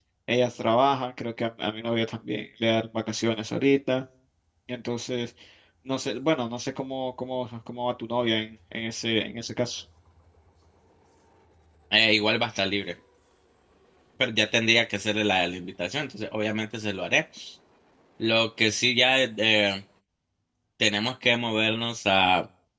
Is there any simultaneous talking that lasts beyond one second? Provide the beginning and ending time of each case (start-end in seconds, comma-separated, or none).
none